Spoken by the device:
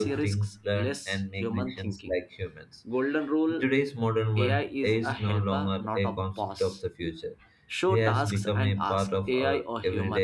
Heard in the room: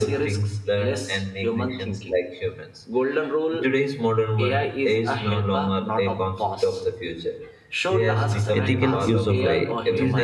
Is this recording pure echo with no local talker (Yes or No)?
No